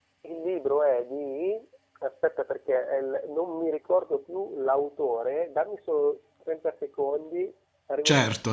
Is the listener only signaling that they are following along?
No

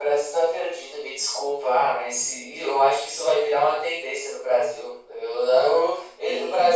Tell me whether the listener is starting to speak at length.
No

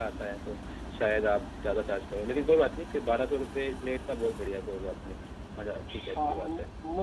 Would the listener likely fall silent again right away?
No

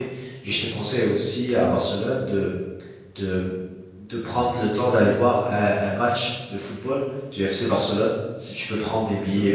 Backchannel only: No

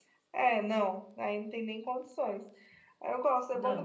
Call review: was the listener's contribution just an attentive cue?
Yes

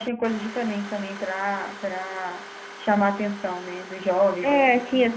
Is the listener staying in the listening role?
No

